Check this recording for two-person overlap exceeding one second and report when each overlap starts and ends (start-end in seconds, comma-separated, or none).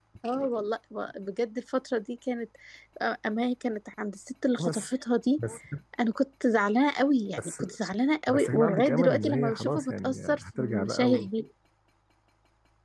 8.3-11.1